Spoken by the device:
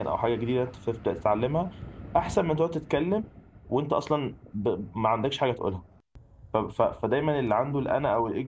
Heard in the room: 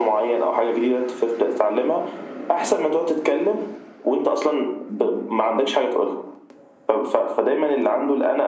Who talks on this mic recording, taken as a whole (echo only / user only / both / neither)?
echo only